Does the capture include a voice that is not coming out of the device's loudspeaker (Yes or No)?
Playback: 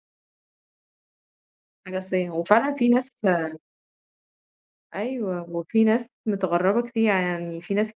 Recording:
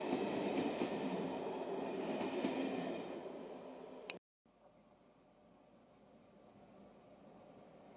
No